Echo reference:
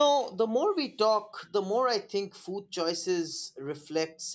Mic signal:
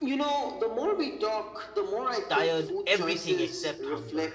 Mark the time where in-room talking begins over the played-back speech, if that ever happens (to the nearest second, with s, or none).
2 s